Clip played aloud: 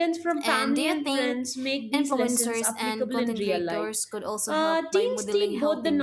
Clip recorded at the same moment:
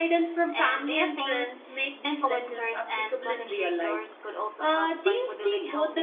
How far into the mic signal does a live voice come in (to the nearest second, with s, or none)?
none